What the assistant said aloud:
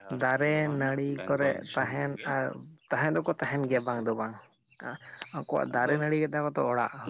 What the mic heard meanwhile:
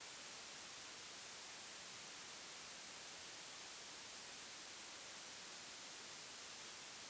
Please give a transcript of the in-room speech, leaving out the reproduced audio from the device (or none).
none